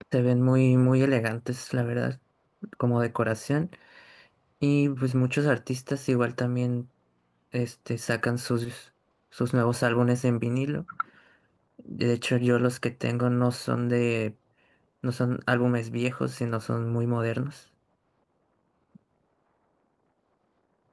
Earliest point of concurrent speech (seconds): none

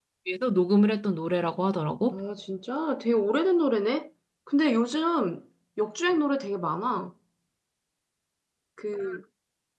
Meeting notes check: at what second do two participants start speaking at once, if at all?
none

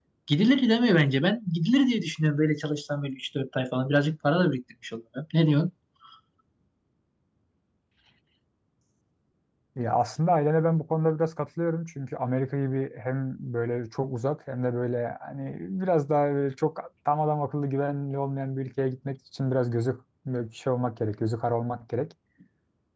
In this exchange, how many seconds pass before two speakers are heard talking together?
none

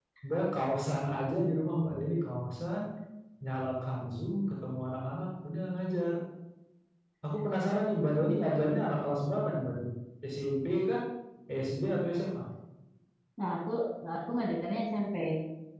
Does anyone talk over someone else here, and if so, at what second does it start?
none

